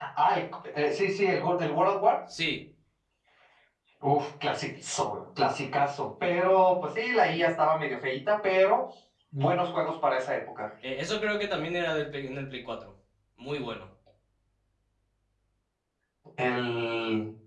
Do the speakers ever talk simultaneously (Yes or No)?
No